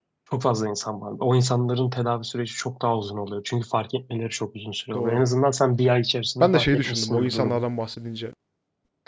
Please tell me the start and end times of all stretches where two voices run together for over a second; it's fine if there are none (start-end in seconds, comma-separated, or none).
6.4-7.7